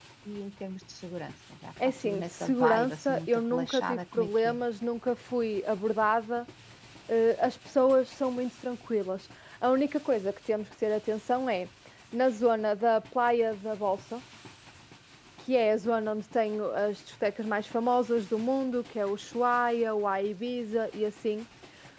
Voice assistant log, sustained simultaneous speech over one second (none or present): present